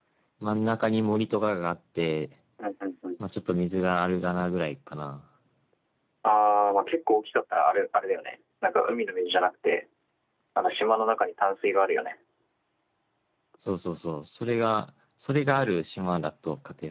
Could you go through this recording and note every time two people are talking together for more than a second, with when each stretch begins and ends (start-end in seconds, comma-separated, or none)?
none